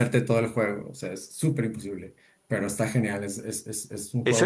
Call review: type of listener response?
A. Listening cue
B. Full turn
B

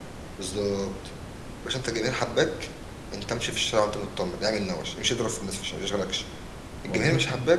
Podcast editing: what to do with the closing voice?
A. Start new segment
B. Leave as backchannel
B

